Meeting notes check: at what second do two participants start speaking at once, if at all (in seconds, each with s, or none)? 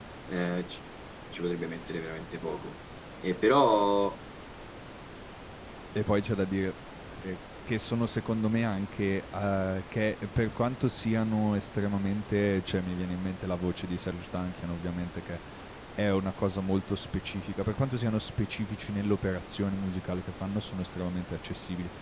none